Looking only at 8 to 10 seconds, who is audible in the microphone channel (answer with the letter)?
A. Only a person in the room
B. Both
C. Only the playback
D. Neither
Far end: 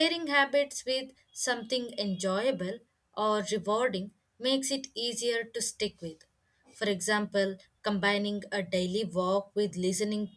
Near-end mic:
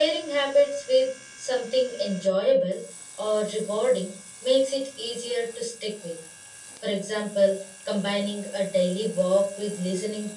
C